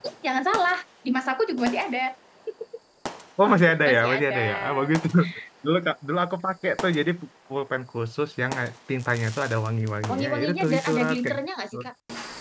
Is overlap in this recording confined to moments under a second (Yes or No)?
No